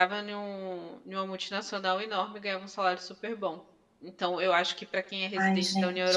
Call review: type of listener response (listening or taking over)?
listening